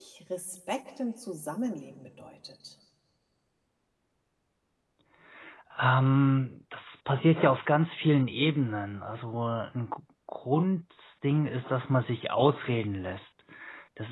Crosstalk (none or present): none